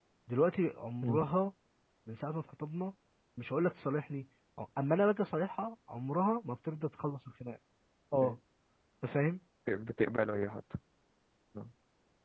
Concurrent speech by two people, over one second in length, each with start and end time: none

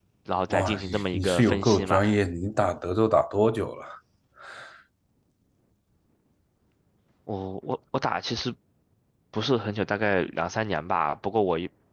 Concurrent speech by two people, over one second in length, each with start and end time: 0.5-2.0

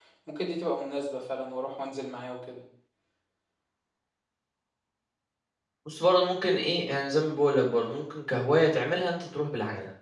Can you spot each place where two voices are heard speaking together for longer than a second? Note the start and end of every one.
none

